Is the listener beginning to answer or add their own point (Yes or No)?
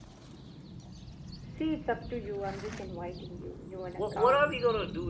Yes